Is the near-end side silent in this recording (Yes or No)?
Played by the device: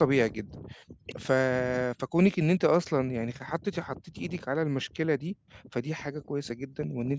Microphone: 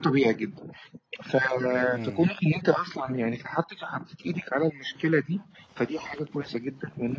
No